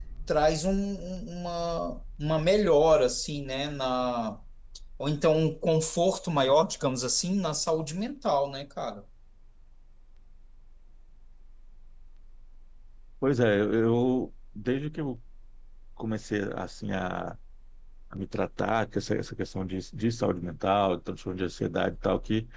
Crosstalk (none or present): none